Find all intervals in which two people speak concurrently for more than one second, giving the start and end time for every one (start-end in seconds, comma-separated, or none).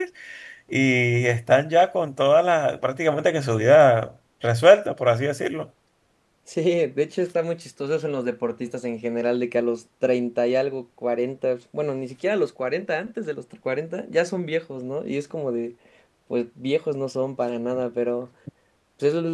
none